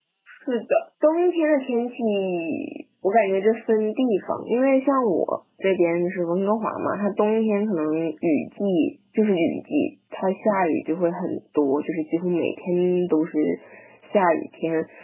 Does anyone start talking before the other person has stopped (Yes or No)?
No